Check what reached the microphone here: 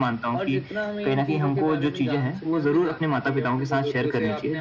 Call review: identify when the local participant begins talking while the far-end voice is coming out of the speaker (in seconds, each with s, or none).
none